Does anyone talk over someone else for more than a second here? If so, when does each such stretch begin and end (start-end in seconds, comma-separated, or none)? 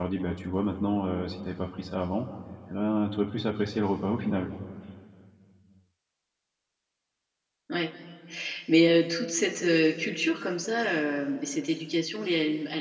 none